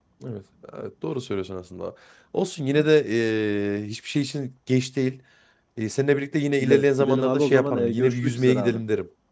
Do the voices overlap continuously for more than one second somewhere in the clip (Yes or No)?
Yes